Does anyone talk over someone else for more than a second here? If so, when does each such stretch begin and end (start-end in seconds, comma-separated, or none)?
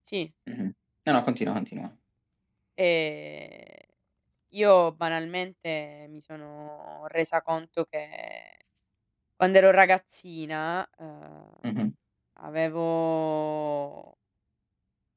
none